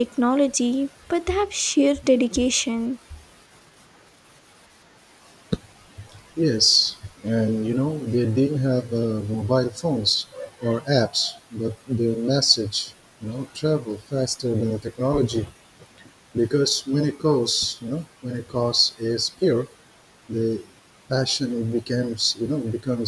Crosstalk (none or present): none